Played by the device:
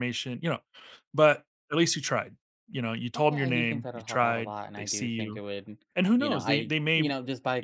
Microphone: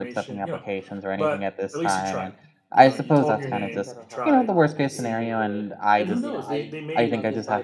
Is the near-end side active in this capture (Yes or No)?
Yes